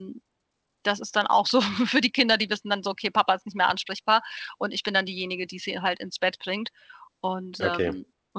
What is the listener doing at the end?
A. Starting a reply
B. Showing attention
B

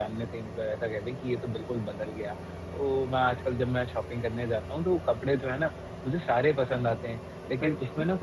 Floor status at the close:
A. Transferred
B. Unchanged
B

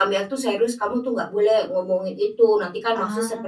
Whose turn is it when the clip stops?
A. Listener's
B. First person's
B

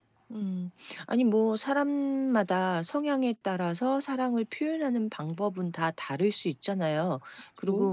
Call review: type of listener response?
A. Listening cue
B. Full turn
A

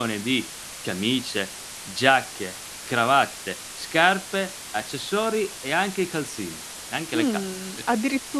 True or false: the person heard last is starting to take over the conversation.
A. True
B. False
A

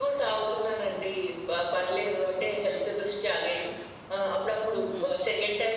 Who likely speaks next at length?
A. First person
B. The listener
A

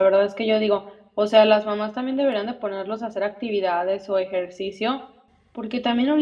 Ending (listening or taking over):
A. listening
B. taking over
A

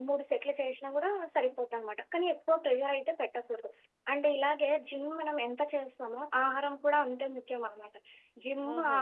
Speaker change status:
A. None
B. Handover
A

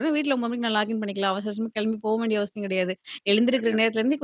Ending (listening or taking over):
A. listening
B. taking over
A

